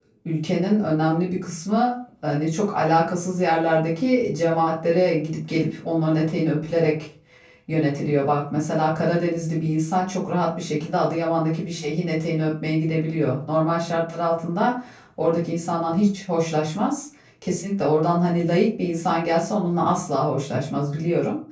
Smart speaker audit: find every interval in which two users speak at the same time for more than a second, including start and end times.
none

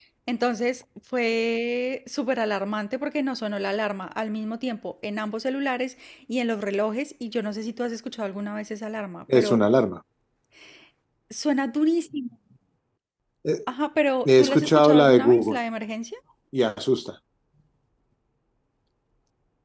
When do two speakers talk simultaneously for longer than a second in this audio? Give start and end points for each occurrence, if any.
14.2-15.6

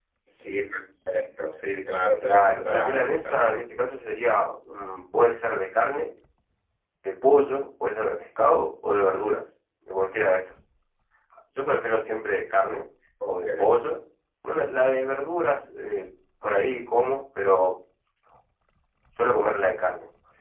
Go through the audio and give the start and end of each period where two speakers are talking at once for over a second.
2.2-3.6

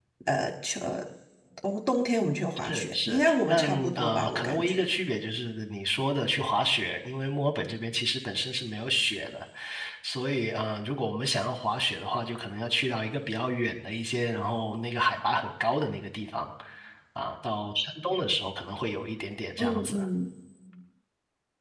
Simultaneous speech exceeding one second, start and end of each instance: 2.6-4.8

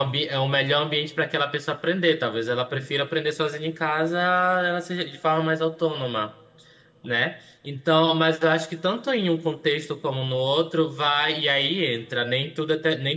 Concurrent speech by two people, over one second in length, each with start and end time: none

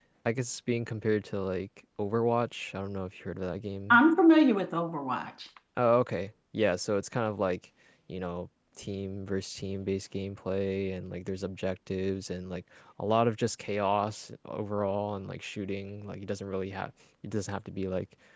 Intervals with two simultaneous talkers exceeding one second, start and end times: none

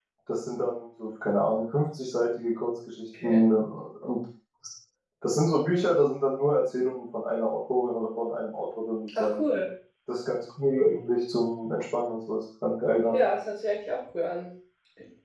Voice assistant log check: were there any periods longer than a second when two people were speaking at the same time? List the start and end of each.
none

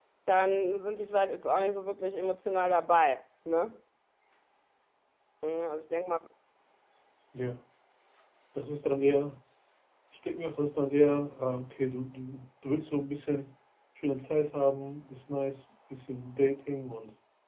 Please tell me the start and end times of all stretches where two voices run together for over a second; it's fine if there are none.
none

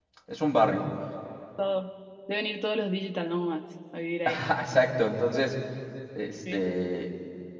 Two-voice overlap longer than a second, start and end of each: none

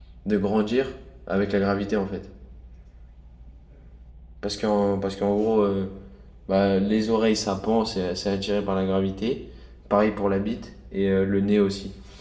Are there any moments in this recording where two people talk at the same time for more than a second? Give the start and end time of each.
none

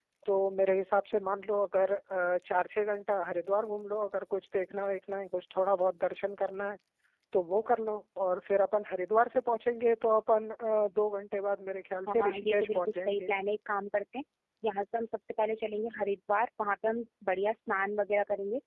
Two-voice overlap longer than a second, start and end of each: 12.1-13.3

